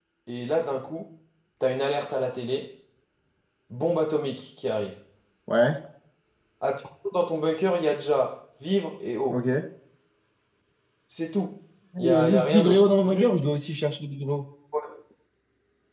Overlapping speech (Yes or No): Yes